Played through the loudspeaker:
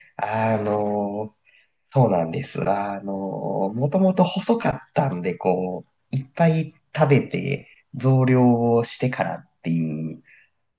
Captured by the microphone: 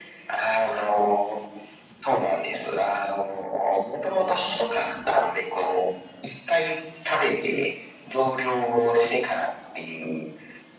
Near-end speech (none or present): none